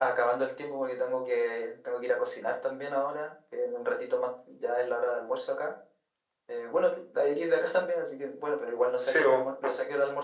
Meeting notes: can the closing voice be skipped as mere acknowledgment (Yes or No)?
Yes